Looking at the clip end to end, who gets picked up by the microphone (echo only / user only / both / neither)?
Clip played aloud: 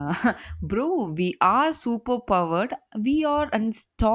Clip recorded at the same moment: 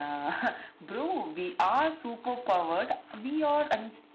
echo only